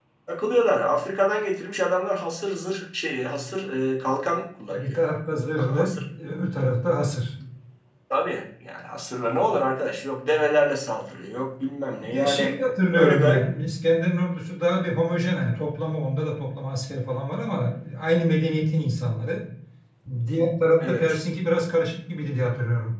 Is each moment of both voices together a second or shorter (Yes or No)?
Yes